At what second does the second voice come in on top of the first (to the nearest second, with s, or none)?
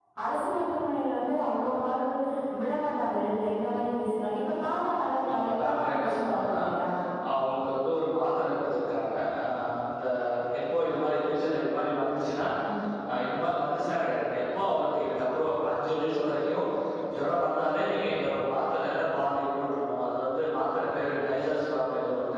5 s